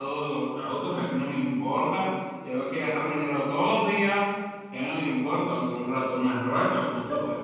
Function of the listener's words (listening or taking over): taking over